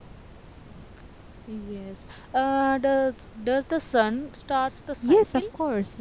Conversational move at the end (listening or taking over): taking over